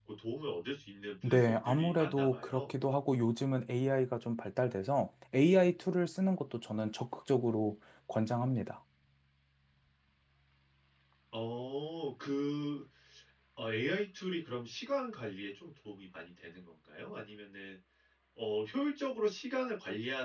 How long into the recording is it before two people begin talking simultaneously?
1.2 s

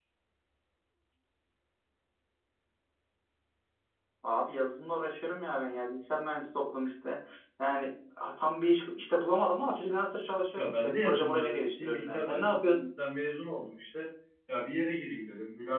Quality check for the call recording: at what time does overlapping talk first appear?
10.6 s

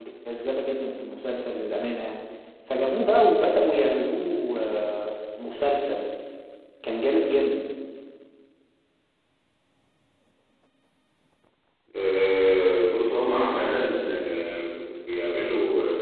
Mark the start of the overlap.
none

